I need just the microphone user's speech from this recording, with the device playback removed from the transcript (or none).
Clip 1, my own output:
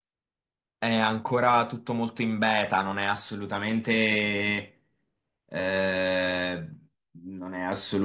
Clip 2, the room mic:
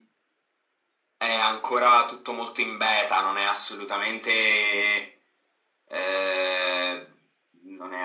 none